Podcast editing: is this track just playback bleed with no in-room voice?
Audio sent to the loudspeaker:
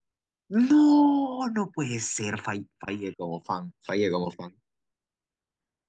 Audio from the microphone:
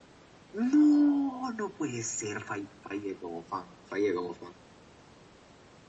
Yes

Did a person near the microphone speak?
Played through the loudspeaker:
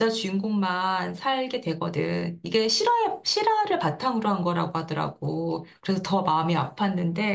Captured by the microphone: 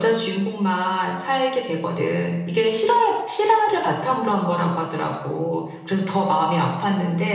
No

